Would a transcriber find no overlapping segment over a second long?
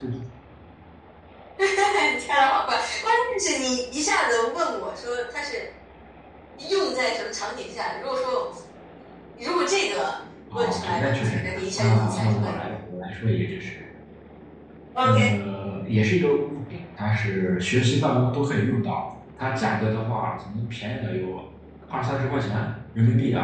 No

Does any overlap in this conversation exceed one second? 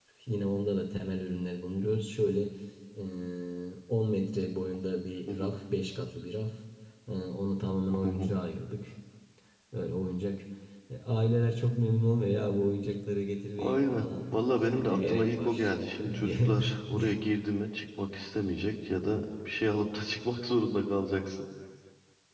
Yes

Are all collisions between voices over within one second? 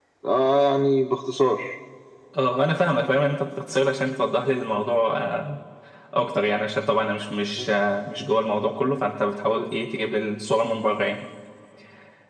Yes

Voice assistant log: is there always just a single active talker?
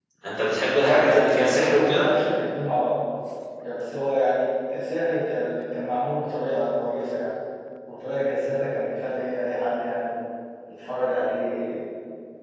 No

